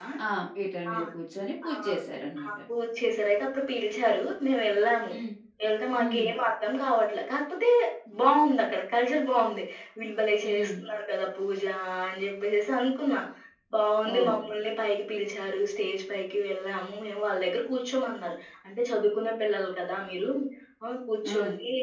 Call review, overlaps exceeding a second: none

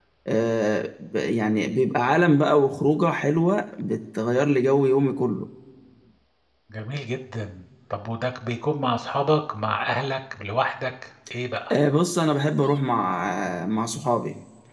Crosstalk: none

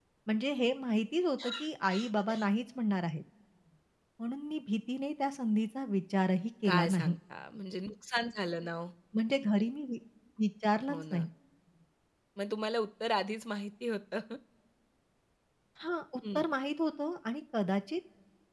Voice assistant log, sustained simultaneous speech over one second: none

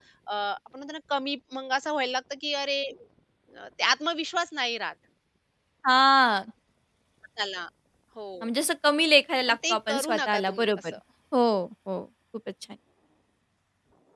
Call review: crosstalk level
present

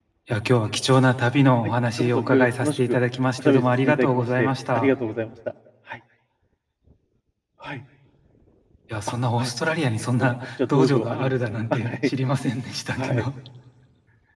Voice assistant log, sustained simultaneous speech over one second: present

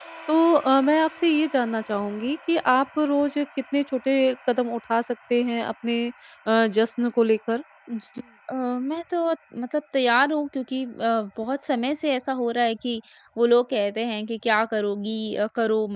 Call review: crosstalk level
none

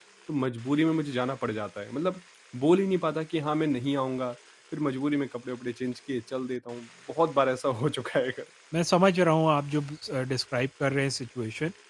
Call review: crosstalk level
none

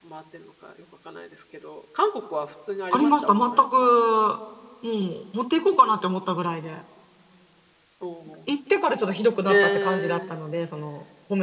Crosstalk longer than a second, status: present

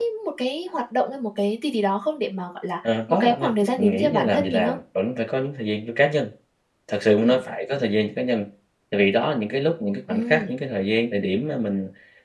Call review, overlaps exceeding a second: present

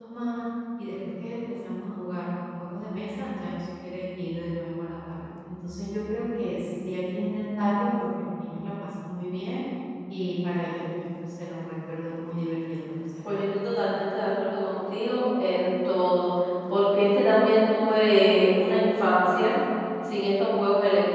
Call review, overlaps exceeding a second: none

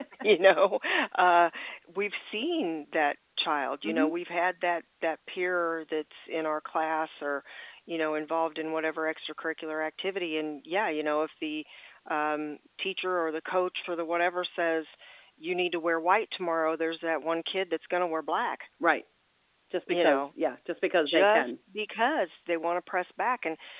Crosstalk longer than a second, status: none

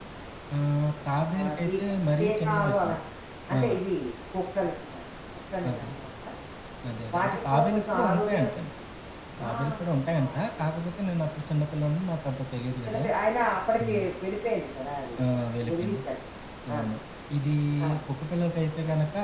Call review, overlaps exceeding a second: present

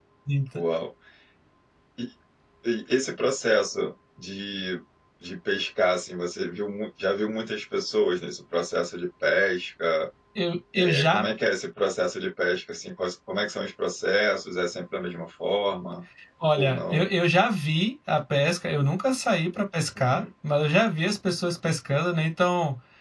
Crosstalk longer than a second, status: none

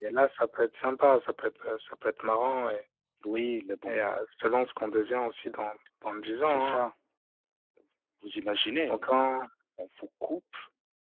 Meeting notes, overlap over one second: none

